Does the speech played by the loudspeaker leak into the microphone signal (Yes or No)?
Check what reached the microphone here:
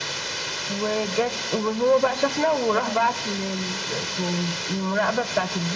Yes